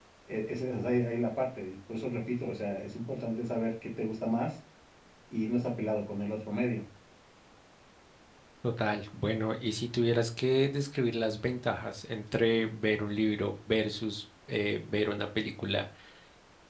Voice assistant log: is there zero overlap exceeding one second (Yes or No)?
Yes